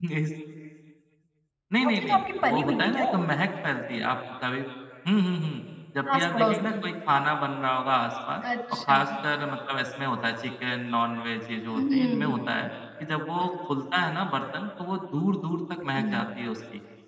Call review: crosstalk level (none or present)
present